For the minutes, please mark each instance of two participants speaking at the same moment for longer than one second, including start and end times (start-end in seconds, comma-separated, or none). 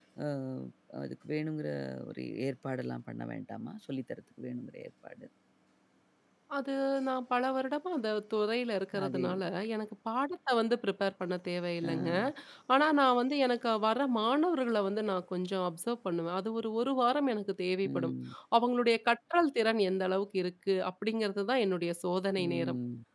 none